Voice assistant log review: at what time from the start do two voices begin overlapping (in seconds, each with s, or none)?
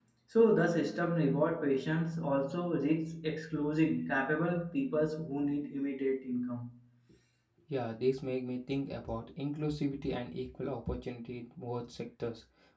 none